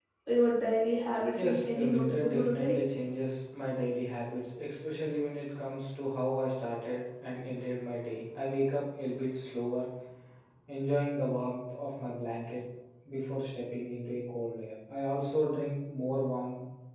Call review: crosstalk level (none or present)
present